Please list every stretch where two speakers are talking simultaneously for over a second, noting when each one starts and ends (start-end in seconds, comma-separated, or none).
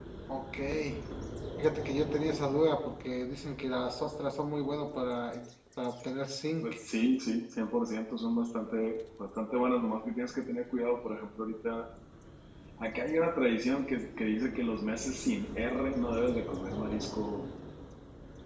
none